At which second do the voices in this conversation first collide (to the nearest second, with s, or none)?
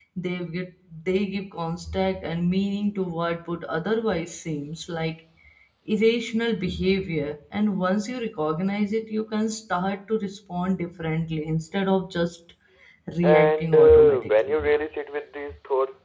13 s